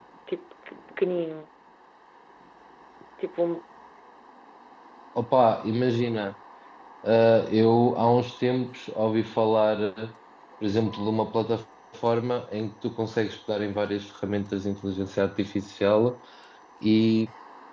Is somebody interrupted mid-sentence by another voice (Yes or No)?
No